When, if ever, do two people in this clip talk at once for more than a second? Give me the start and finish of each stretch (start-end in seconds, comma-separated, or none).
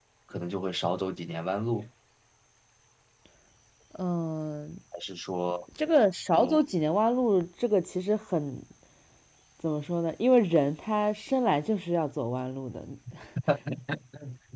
none